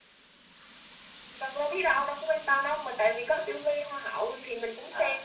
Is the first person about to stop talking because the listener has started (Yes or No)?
Yes